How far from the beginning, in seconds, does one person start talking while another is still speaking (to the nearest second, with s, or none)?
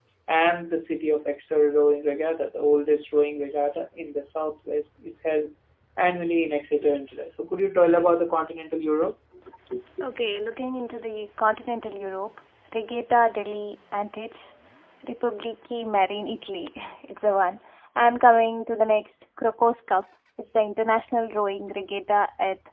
none